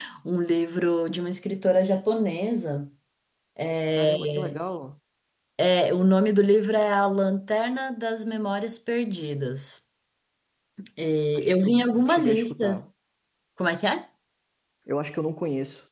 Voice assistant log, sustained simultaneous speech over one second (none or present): present